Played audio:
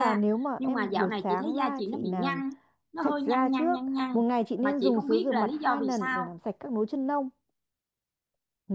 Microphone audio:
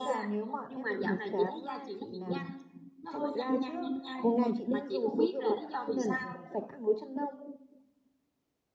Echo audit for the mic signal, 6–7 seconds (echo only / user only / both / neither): echo only